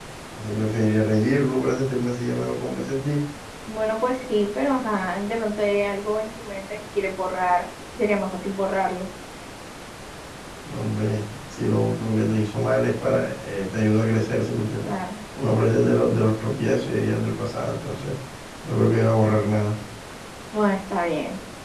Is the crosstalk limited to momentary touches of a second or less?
Yes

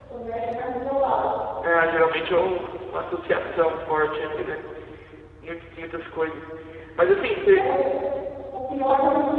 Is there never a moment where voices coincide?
Yes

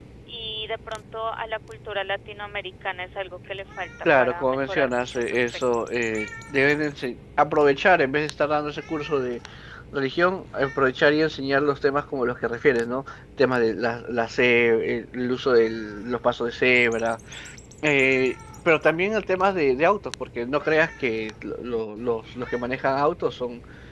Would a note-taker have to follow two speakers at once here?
Yes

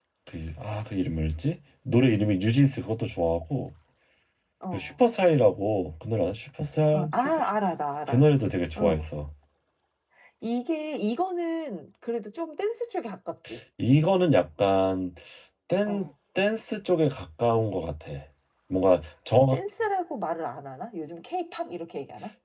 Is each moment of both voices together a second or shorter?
Yes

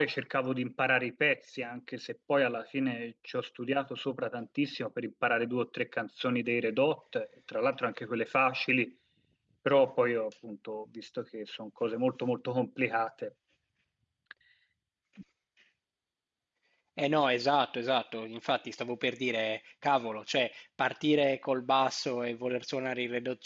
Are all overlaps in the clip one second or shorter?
Yes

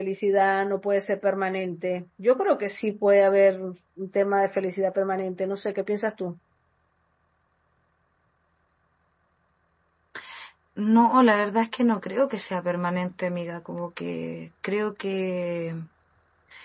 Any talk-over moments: No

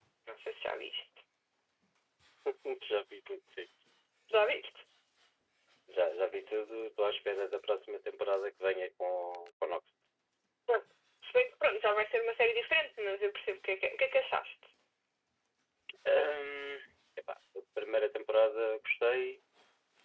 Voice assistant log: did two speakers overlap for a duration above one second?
No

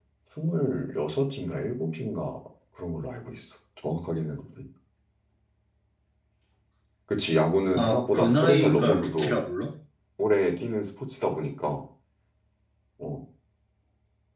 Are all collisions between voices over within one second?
No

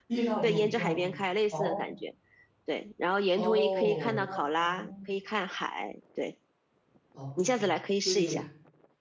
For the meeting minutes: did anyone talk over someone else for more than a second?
Yes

